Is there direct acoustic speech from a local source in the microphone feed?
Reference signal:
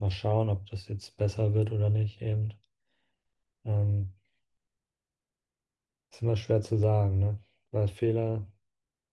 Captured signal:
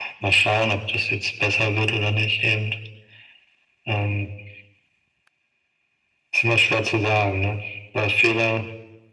No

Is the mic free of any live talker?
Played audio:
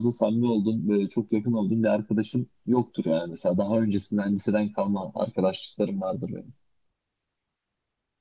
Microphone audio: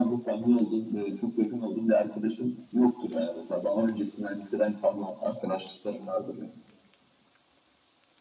Yes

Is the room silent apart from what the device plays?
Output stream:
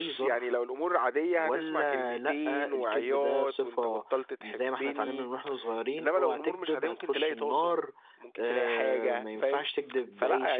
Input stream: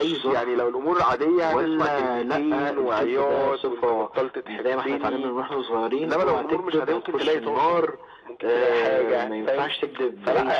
Yes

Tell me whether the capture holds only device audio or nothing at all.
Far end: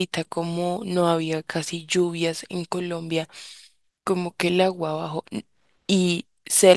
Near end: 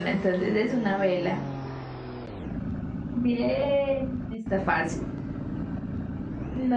No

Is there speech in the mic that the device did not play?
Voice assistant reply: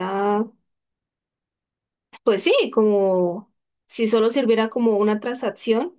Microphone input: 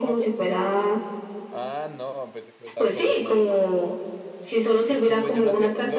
Yes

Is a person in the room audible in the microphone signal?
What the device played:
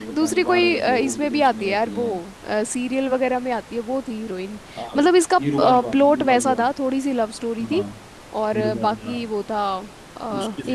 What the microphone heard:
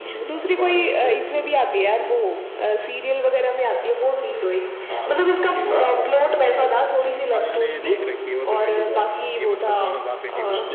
Yes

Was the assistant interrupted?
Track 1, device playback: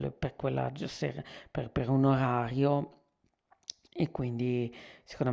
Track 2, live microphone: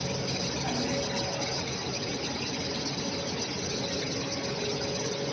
No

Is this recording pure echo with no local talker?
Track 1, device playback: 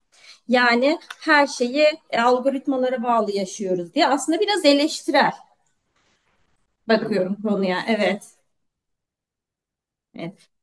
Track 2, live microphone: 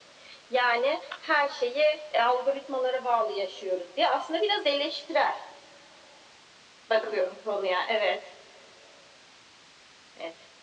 Yes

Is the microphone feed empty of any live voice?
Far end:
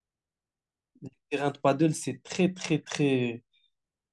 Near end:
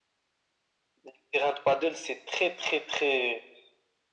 Yes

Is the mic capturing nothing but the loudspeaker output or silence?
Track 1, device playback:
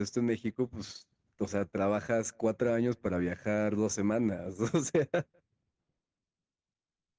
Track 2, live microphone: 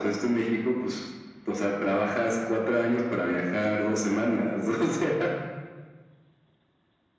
Yes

